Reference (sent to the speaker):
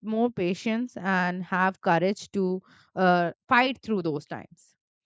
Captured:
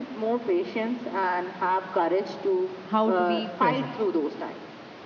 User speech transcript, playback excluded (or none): how to be present